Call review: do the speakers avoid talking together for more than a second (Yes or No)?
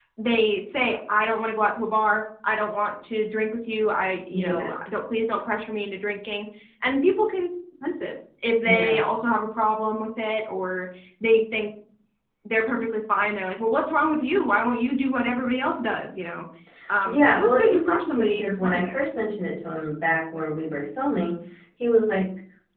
No